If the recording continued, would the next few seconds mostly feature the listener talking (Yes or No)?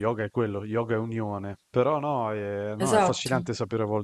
No